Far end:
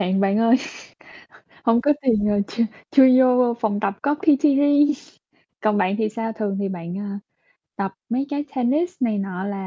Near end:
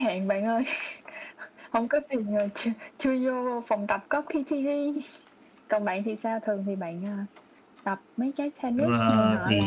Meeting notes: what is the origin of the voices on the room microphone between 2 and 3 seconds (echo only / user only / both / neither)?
echo only